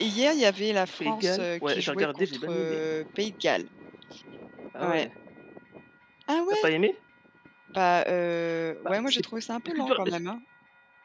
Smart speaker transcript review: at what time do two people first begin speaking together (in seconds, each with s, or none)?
1.1 s